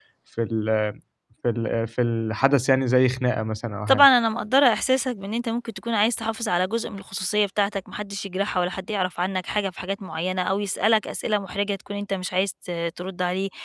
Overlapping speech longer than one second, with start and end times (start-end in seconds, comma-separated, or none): none